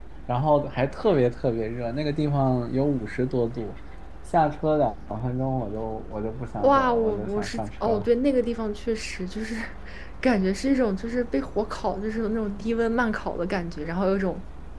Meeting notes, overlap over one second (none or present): present